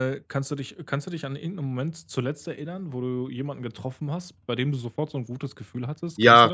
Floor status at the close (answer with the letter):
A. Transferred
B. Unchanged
A